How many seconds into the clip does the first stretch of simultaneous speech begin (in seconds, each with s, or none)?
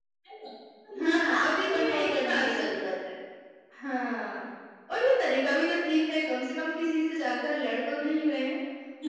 1.0 s